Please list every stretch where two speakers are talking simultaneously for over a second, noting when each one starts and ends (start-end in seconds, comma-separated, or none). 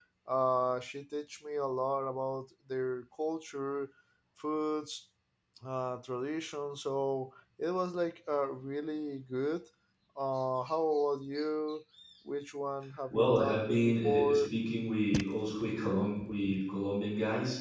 13.1-14.4